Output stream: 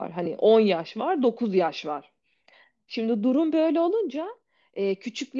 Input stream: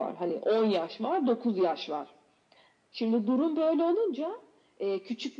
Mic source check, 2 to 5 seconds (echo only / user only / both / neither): echo only